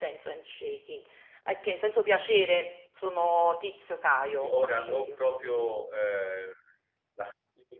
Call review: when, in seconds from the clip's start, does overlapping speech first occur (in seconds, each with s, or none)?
4.4 s